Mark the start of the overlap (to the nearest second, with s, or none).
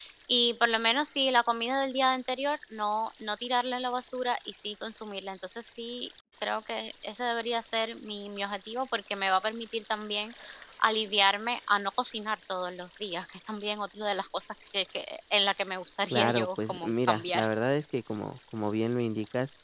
16 s